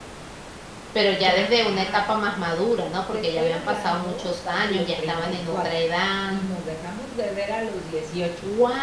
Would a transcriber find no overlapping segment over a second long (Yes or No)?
No